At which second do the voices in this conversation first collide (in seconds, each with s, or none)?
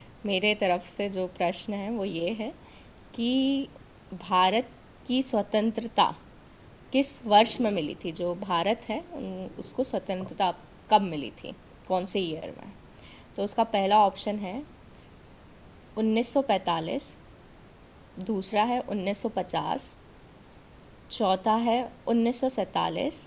none